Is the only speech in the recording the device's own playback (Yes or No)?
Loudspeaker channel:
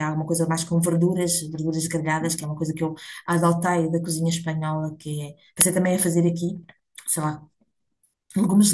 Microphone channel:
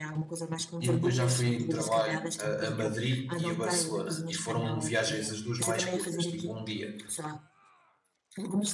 No